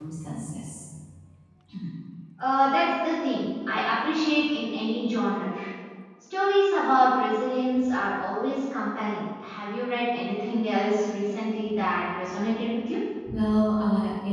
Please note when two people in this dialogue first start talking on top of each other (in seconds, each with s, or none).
none